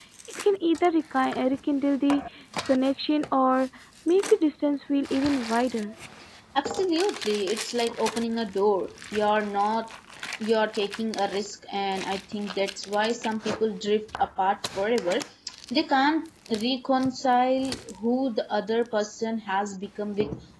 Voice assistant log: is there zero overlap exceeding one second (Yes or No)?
Yes